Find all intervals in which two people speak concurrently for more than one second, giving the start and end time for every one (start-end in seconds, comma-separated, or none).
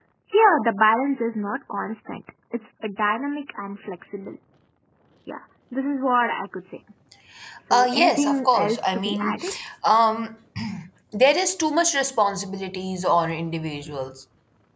7.7-9.4